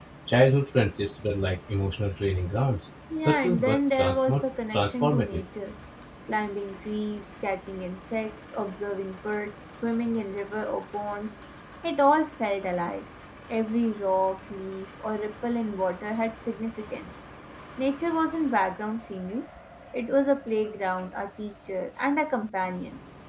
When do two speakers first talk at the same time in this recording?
3.1 s

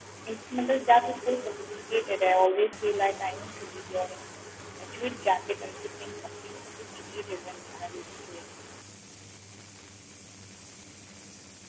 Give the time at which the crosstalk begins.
none

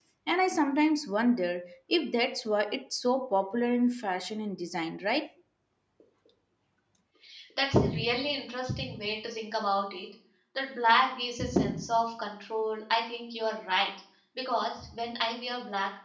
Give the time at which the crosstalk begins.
none

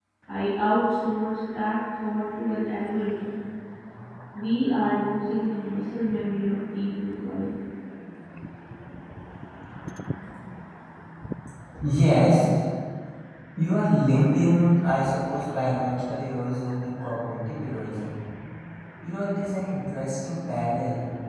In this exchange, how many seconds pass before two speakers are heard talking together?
none

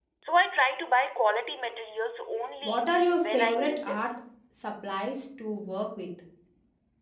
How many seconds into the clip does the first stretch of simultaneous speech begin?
2.6 s

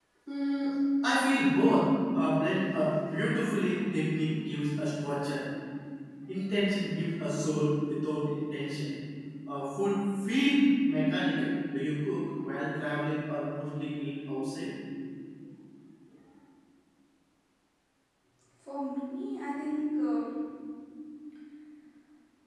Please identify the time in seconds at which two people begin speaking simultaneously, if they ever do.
none

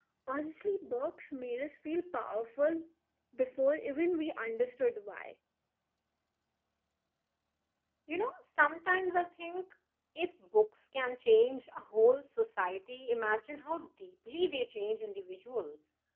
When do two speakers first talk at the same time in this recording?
none

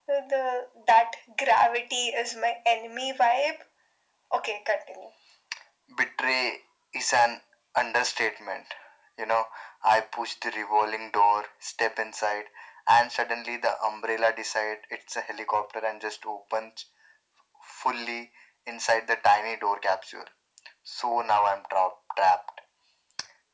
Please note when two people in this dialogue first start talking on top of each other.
none

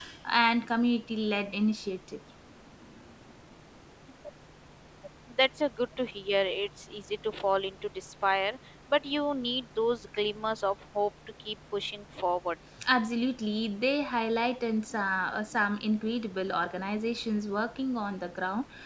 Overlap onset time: none

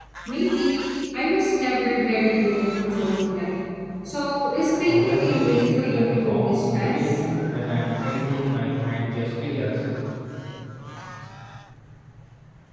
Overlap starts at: 4.8 s

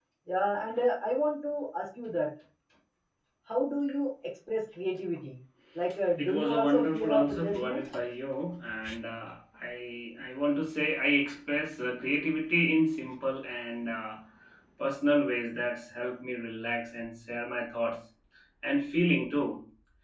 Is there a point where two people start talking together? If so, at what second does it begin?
6.2 s

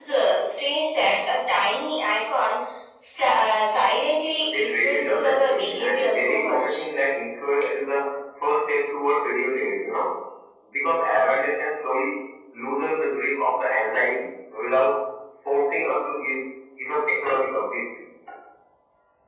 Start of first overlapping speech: 4.5 s

